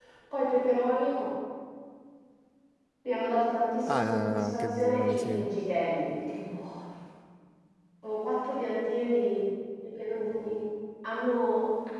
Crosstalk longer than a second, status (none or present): present